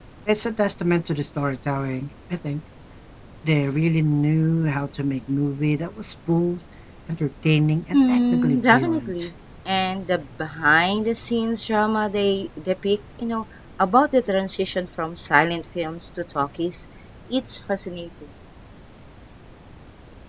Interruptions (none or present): present